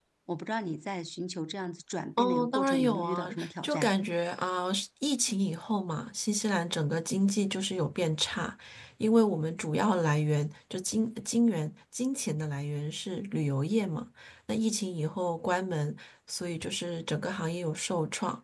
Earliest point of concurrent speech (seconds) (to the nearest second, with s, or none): 2 s